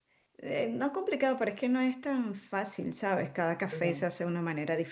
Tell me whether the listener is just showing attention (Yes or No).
Yes